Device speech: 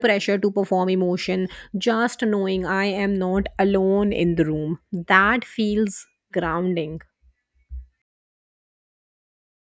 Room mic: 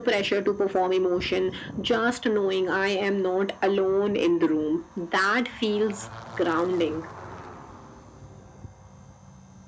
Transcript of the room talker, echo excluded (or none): none